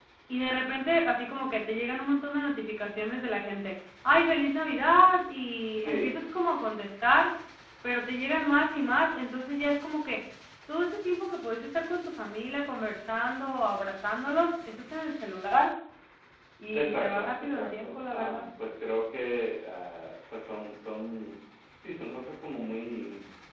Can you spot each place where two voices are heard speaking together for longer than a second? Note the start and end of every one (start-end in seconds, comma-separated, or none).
16.7-18.4